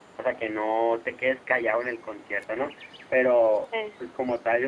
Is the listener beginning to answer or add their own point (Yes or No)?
No